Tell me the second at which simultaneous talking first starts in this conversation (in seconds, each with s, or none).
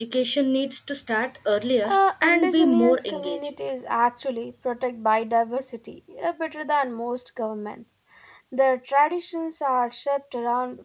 1.8 s